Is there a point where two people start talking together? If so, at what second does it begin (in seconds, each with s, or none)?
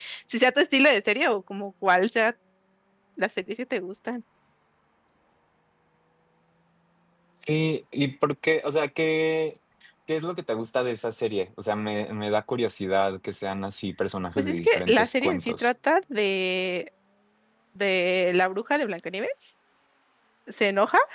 14.4 s